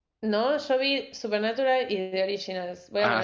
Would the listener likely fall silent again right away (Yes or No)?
No